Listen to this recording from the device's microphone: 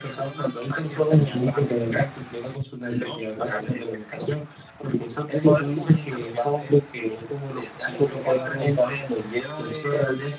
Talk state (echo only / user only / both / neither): echo only